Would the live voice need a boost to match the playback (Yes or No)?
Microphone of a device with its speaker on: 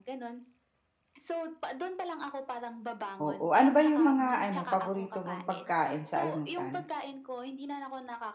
No